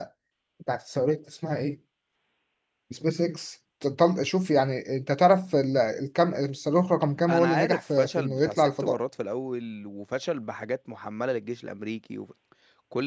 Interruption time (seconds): 7.3 s

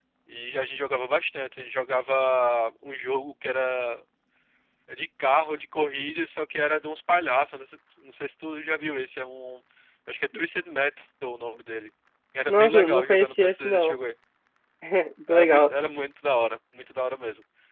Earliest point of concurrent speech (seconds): 12.5 s

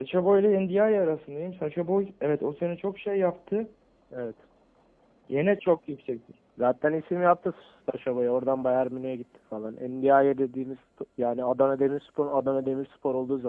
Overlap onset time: none

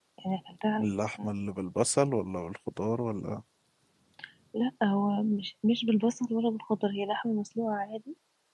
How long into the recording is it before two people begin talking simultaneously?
none

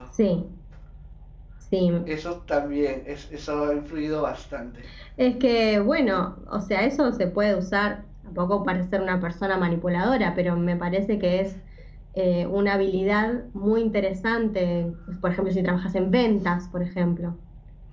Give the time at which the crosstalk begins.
none

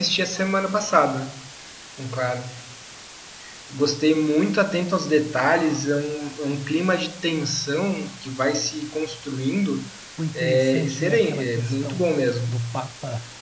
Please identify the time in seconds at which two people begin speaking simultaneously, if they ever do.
10.3 s

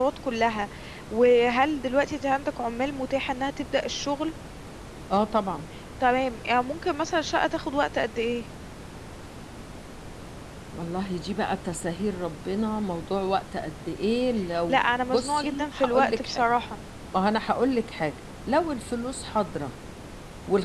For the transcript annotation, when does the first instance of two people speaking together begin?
14.7 s

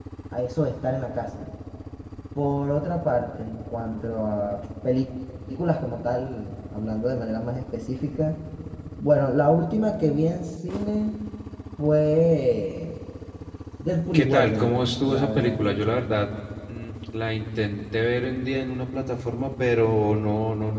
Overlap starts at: 14.1 s

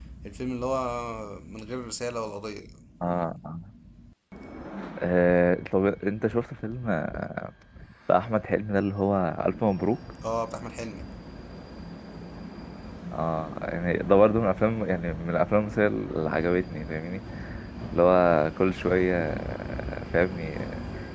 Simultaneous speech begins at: none

